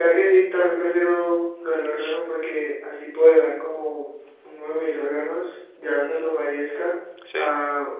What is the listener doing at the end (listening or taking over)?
listening